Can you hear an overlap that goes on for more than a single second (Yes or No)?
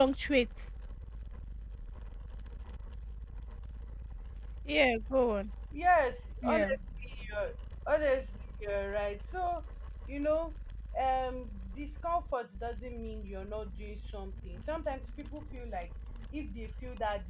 No